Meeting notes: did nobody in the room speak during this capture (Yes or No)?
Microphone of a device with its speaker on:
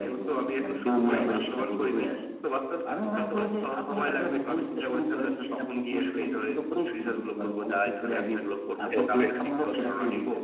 No